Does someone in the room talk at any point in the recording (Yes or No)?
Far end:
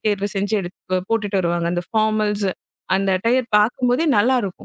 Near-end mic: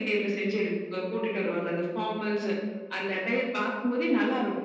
No